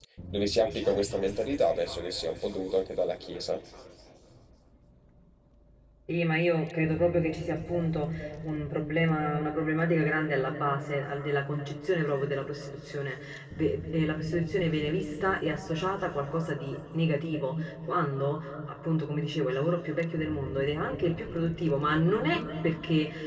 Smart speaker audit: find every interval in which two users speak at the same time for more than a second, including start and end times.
none

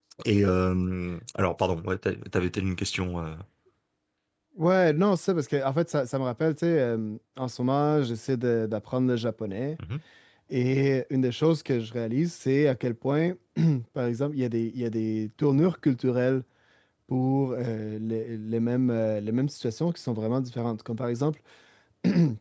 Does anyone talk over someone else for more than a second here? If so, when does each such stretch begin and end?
none

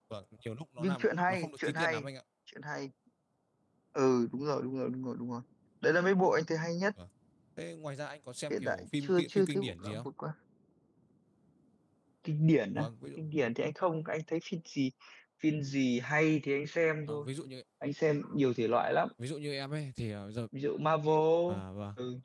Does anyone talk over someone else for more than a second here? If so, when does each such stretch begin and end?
0.8-2.1, 8.5-10.1

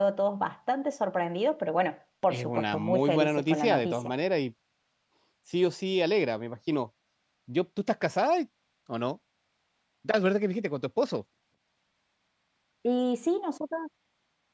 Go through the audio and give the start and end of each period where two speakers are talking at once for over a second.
2.3-4.1

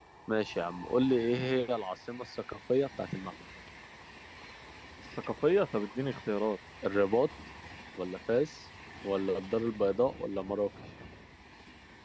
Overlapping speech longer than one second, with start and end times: none

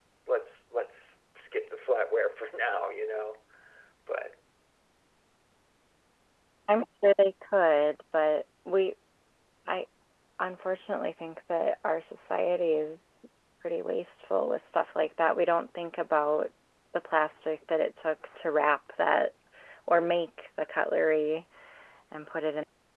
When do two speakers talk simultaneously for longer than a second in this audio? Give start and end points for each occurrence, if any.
none

